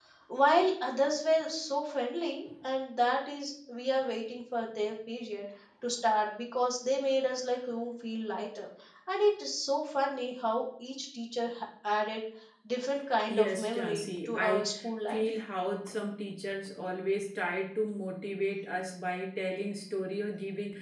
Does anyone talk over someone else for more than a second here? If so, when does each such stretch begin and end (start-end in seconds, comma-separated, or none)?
13.4-14.7